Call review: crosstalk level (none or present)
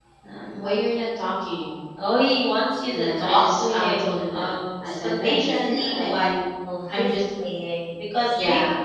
present